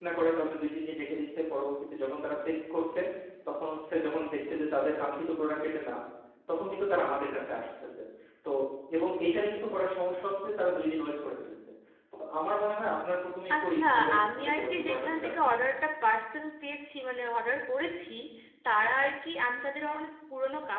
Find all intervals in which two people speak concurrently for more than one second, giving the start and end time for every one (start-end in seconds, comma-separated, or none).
13.6-15.6